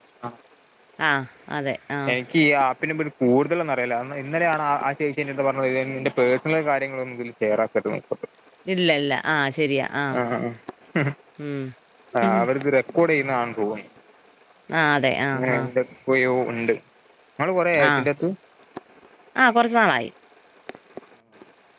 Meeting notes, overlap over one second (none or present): none